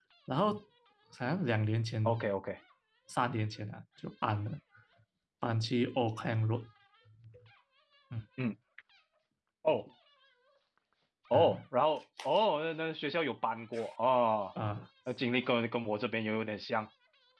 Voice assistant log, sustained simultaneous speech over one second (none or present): none